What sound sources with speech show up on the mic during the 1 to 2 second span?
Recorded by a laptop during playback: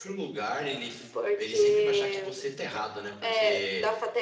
both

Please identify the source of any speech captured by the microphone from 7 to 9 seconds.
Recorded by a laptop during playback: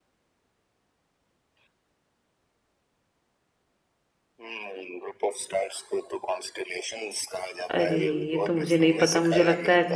both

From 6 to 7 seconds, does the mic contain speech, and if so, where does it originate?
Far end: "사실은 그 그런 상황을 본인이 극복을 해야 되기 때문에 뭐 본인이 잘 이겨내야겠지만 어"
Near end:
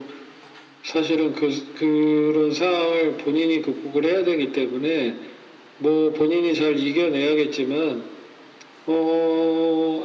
echo only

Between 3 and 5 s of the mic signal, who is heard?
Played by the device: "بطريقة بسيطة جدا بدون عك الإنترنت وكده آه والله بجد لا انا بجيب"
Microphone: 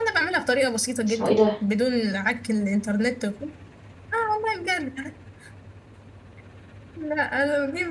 echo only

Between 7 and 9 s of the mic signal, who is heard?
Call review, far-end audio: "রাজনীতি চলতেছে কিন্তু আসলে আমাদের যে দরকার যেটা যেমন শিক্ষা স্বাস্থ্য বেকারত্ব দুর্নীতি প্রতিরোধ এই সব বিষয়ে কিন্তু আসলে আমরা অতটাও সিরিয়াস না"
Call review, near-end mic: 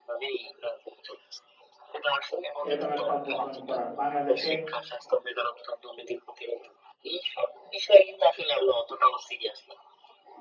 echo only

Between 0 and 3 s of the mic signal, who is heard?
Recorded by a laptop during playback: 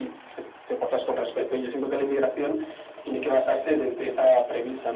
echo only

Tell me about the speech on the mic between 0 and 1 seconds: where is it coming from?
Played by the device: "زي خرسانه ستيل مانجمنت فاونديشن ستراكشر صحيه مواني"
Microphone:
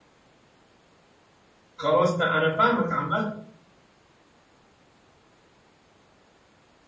neither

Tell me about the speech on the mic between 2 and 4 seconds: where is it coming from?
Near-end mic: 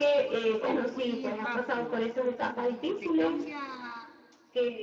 both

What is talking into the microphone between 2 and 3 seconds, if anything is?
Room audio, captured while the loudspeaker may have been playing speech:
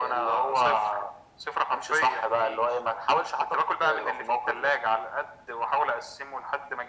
echo only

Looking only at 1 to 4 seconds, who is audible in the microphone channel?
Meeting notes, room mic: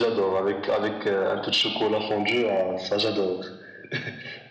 echo only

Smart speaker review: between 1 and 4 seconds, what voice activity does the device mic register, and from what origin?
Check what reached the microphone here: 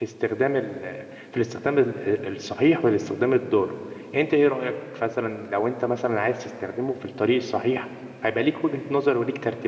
user only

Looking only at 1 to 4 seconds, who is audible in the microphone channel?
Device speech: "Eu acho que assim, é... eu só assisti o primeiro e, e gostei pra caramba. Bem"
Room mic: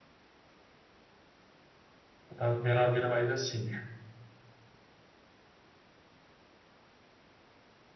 user only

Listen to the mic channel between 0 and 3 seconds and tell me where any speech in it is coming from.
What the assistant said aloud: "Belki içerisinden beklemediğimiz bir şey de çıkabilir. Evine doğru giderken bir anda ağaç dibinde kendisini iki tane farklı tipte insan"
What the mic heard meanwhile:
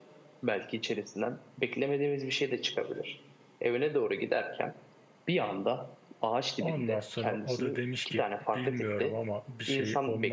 echo only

